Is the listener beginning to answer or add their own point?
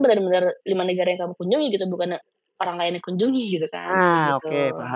Yes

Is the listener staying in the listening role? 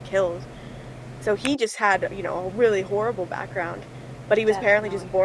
Yes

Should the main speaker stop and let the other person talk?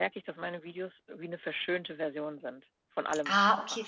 Yes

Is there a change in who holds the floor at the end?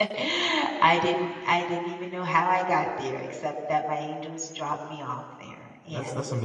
Yes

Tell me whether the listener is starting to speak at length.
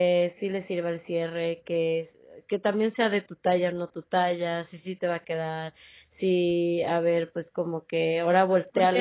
Yes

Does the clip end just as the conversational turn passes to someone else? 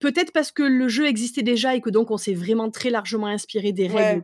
Yes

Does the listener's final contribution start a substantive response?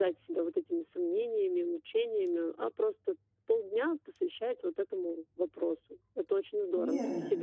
Yes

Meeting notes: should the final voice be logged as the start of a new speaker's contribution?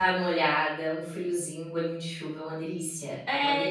Yes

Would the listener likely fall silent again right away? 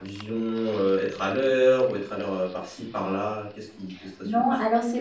No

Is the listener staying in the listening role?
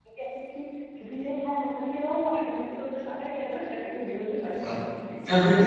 No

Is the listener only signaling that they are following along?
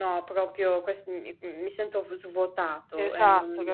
No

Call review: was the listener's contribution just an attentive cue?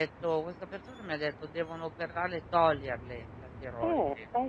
No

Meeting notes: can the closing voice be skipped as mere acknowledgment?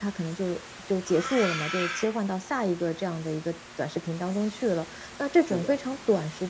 Yes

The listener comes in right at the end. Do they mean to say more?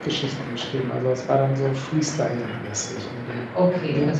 Yes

